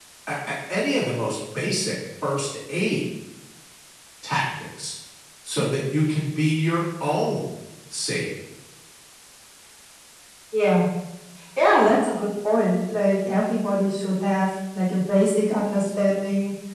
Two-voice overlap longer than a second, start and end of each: none

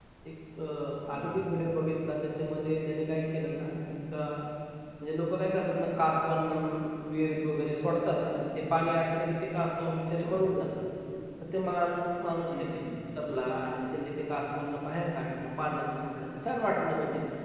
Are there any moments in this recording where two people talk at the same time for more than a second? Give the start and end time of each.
none

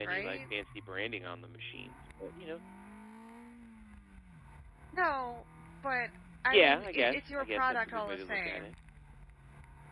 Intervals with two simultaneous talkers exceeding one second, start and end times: 6.5-8.7

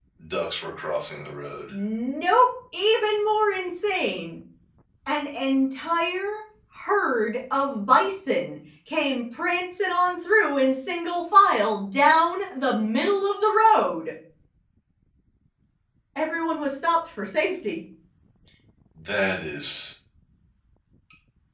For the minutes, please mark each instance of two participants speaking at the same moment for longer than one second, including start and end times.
none

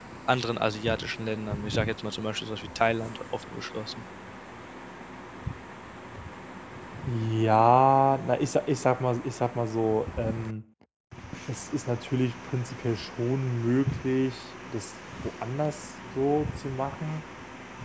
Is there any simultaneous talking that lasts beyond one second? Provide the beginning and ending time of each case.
none

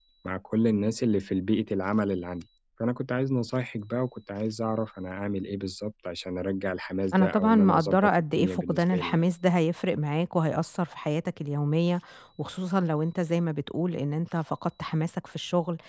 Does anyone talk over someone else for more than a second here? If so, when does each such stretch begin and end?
7.2-9.2

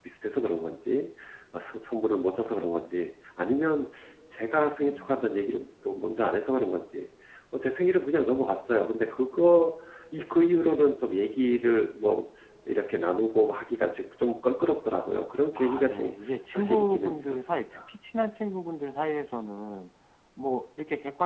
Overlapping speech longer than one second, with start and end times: 15.6-17.8

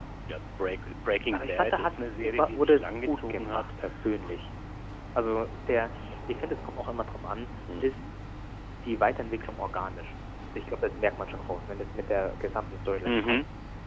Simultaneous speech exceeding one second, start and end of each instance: 1.3-3.7

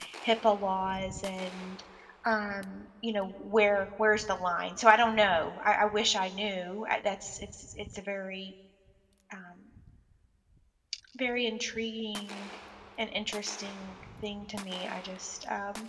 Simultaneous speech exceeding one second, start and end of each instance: none

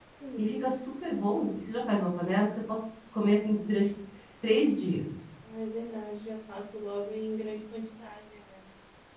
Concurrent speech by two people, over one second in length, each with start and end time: none

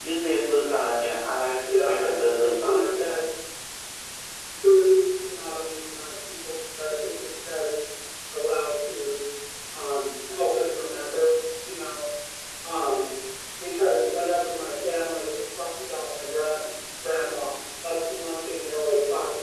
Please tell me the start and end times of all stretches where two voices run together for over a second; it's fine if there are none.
1.8-3.2

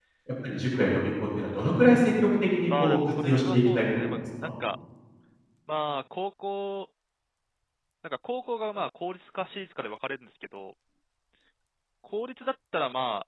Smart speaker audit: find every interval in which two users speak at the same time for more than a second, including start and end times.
2.7-4.5

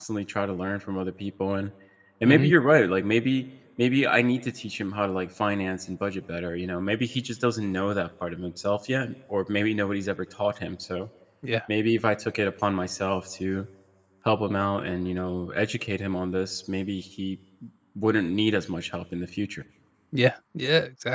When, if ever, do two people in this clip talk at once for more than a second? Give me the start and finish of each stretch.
none

